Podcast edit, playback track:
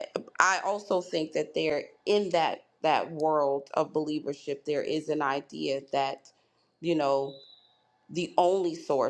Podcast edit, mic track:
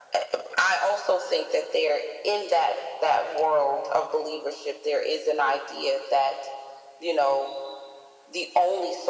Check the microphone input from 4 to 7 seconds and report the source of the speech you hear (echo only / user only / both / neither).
echo only